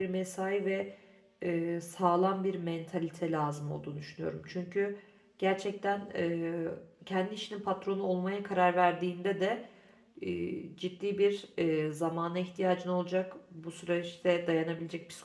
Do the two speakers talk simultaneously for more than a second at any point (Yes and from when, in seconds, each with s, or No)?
No